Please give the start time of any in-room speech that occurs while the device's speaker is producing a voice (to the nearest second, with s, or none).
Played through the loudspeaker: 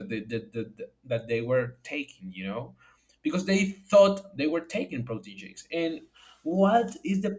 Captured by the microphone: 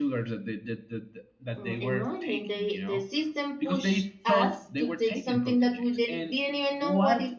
2 s